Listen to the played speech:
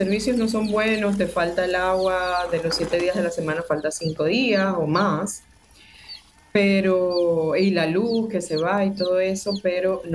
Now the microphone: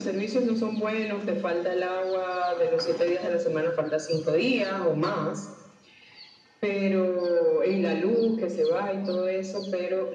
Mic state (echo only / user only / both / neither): echo only